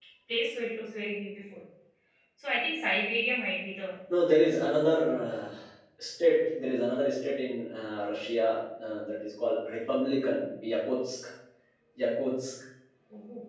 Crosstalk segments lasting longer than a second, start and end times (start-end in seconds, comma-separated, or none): none